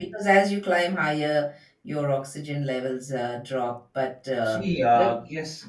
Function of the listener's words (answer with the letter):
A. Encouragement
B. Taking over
B